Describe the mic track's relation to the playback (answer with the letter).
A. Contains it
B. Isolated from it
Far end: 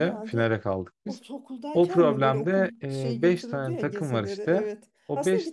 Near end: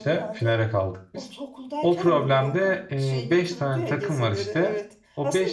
A